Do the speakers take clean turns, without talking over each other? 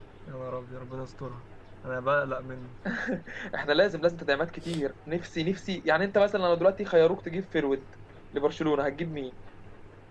Yes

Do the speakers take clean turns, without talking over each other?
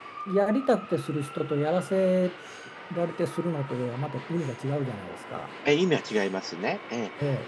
Yes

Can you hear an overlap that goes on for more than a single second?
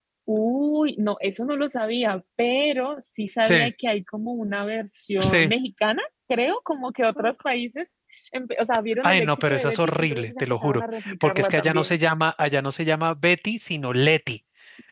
Yes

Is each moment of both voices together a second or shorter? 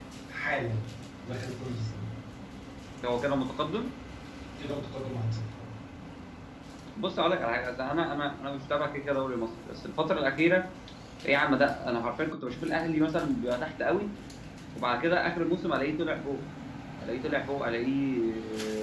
Yes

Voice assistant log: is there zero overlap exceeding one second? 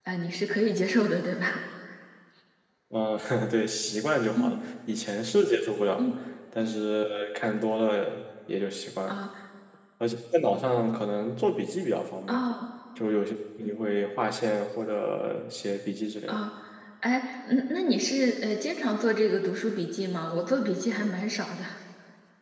Yes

